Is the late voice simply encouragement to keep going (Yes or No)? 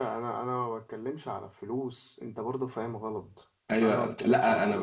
No